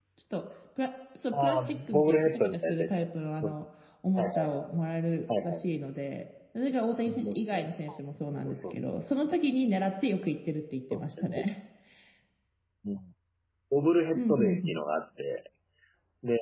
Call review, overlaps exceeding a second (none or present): present